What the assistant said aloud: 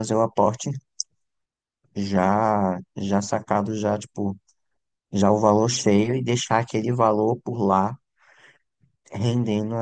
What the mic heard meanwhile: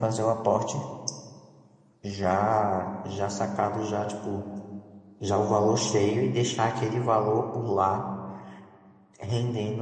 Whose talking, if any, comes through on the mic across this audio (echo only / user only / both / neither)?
echo only